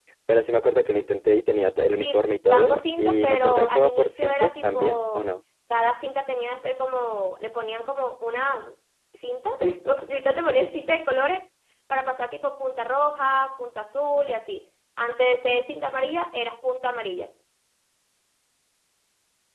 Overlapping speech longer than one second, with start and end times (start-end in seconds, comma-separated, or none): 1.9-5.3